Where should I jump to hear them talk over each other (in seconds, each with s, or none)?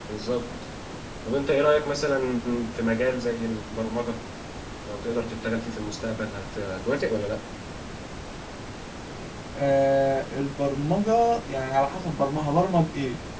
none